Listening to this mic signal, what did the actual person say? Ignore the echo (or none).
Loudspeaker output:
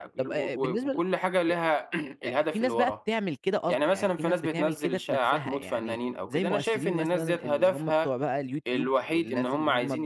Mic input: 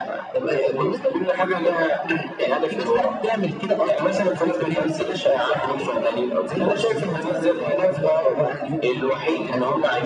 none